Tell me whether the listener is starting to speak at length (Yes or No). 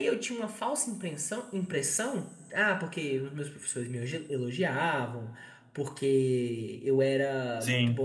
No